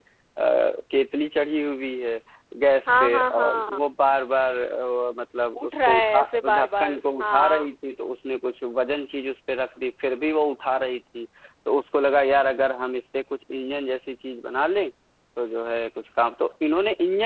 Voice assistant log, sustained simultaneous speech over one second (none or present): present